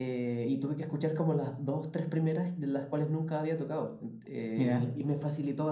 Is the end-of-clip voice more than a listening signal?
No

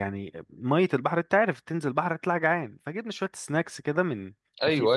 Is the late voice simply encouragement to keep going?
Yes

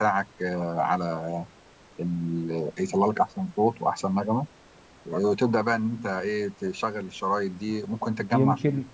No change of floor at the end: No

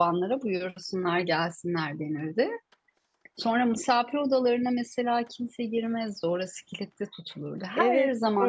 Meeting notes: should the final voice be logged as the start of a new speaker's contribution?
Yes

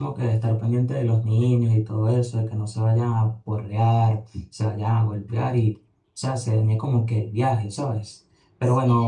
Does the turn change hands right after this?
No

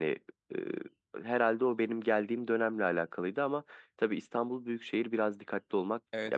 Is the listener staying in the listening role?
No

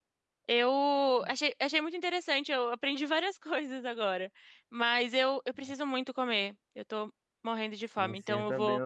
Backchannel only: No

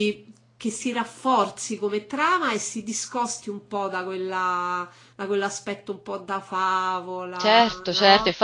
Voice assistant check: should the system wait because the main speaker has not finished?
No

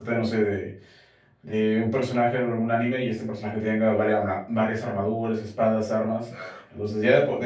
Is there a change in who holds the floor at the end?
No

